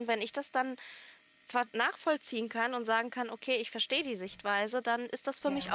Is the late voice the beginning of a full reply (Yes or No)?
No